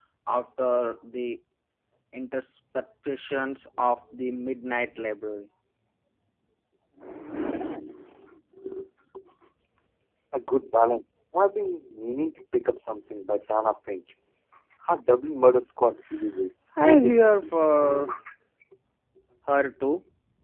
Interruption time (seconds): 16.8 s

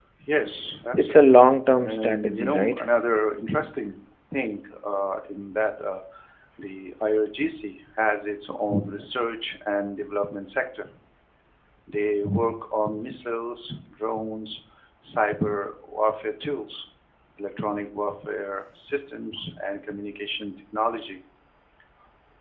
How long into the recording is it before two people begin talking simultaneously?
1.0 s

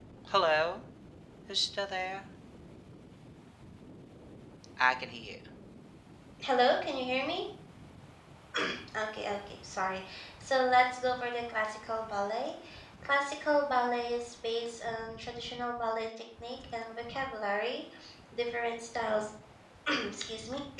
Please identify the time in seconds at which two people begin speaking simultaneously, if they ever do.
none

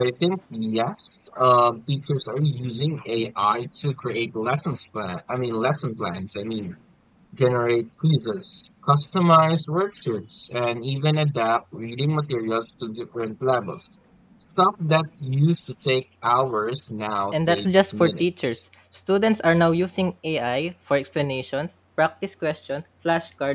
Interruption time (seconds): 17.3 s

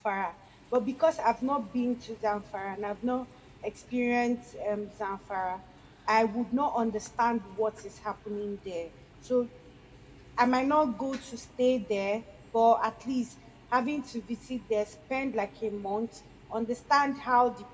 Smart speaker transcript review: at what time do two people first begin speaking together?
none

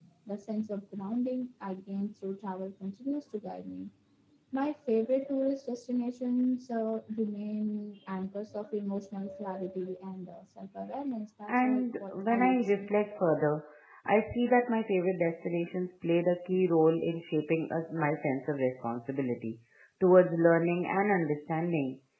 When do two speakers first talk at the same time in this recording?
11.5 s

